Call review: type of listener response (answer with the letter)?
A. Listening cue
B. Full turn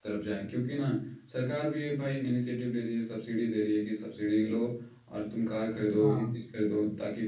A